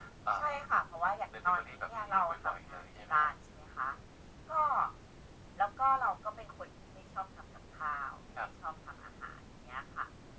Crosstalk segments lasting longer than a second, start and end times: 1.4-3.3

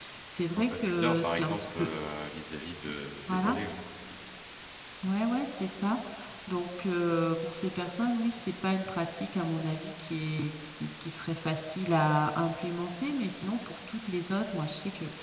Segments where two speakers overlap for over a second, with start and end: 0.6-1.9

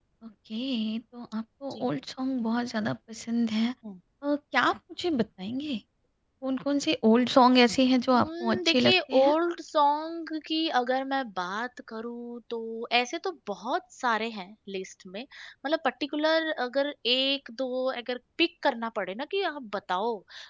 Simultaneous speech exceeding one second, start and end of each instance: 8.1-9.3

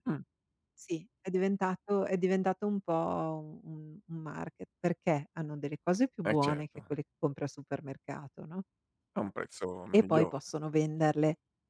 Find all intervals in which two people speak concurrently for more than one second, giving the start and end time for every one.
none

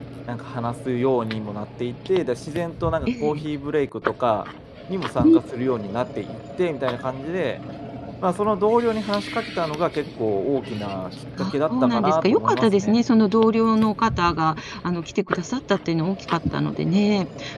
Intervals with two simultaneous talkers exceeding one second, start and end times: 11.4-13.0

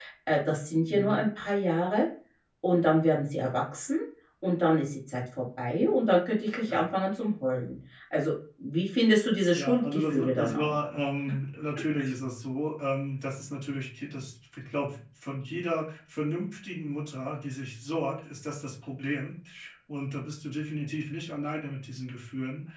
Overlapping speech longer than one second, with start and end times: 9.6-10.8

